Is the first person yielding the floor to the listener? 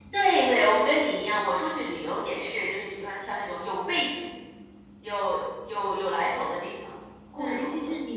Yes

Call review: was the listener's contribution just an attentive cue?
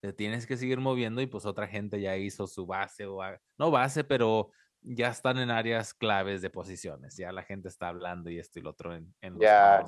No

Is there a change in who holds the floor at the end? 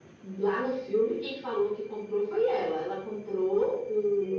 No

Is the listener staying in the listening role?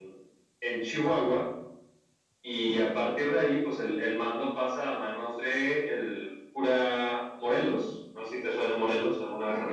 No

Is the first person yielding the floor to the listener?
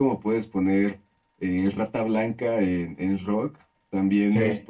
No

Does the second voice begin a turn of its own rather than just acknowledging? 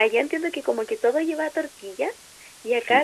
No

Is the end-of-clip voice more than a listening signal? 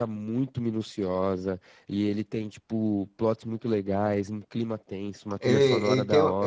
Yes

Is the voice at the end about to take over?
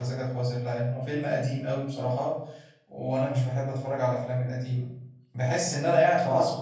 No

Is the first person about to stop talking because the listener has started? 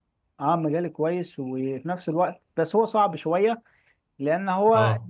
No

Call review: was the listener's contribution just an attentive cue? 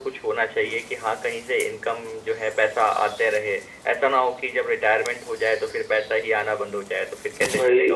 No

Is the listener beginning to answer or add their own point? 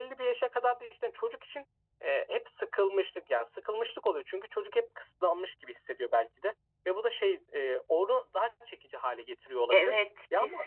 Yes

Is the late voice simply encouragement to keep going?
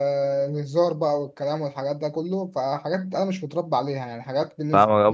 No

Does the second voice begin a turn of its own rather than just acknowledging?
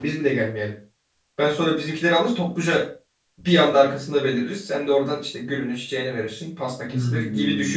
Yes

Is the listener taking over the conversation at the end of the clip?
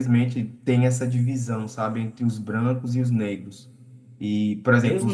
Yes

